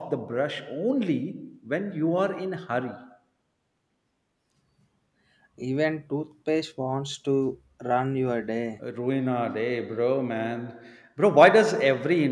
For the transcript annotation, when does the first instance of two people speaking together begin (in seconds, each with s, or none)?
none